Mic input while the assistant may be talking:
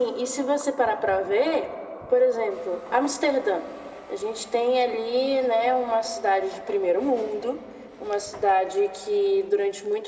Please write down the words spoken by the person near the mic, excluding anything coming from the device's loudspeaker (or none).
none